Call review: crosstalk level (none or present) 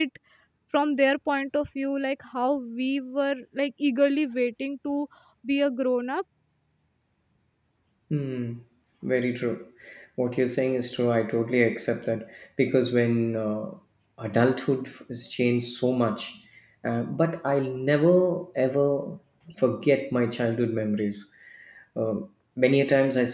none